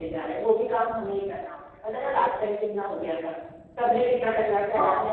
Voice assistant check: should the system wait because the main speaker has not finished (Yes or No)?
Yes